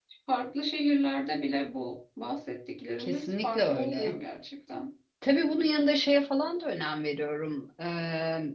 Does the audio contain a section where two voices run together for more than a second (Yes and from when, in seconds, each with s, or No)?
Yes, from 3.0 s